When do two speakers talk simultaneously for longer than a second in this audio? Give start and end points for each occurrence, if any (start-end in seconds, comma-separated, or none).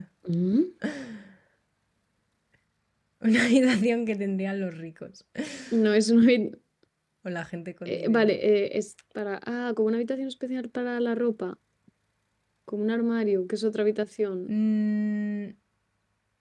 none